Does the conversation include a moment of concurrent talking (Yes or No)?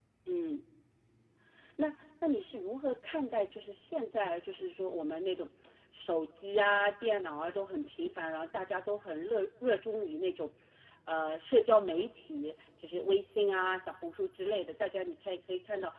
No